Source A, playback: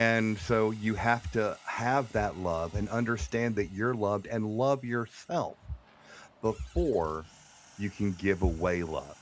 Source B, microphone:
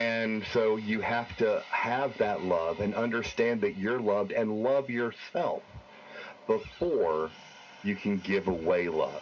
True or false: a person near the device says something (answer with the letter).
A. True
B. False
B